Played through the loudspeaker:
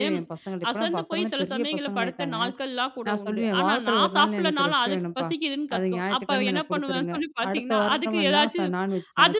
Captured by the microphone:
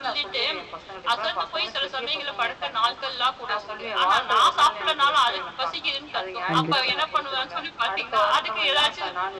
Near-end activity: present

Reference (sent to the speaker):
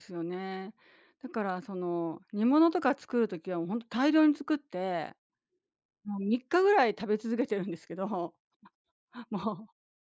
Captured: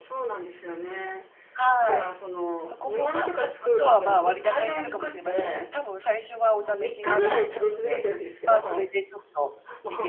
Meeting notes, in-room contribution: present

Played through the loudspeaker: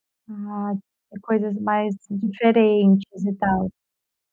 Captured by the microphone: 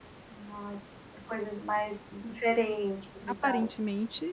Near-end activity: present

